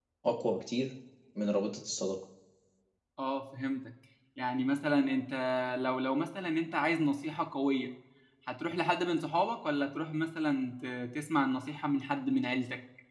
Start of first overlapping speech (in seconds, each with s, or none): none